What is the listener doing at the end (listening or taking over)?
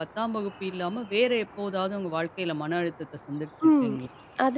taking over